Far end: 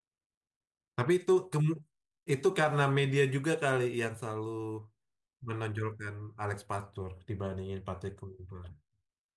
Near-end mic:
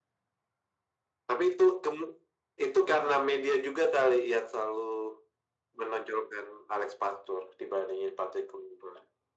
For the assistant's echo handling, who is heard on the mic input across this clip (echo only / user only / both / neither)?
echo only